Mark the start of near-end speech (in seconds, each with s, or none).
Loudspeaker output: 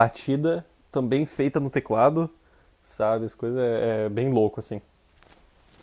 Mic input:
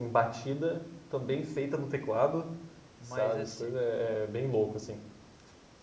3.0 s